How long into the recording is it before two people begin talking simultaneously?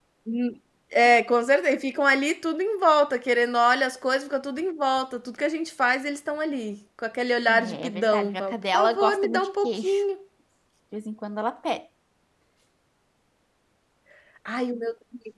7 s

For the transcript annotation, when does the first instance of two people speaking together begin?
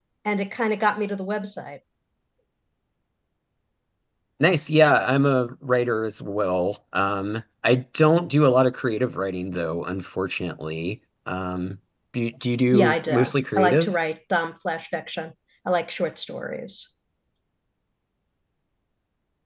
13 s

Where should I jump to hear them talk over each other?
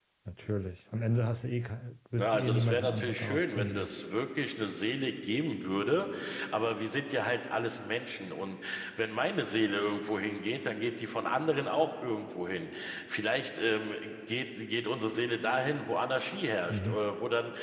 2 s

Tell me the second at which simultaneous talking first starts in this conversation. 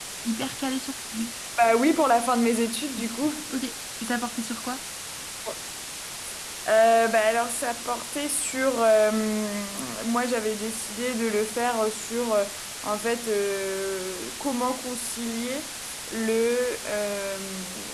none

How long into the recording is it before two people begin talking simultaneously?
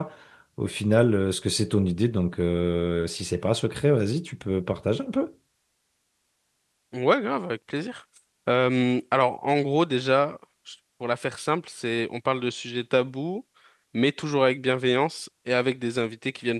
none

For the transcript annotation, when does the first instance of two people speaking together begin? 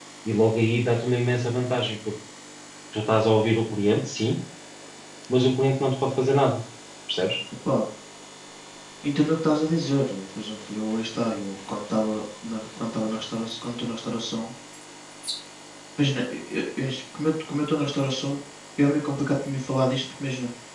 none

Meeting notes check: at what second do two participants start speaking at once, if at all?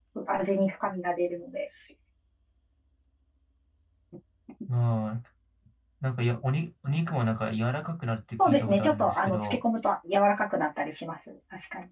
8 s

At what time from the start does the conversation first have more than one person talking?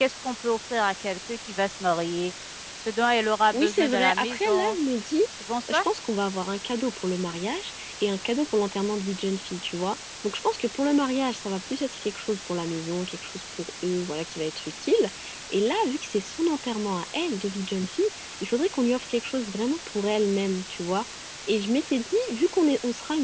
4 s

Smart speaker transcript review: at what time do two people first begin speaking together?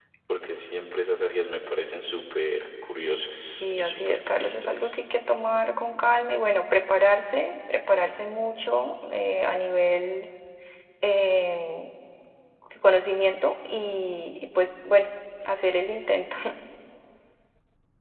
4 s

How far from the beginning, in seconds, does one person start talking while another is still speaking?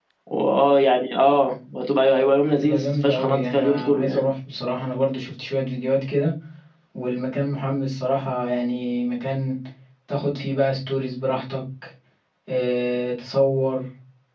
3 s

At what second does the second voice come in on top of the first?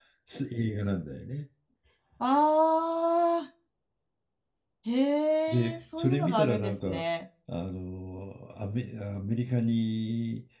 5 s

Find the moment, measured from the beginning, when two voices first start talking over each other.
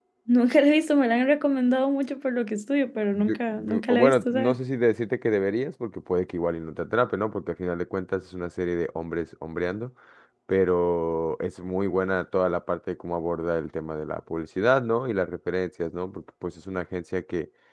3 s

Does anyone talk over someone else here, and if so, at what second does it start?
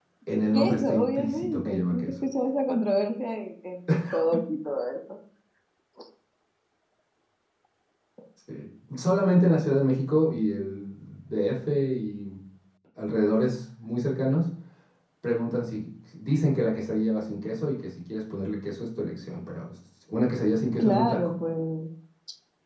1 s

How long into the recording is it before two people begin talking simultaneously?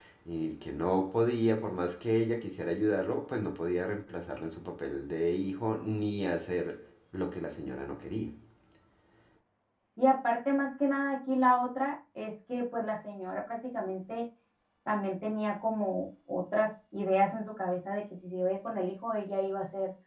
none

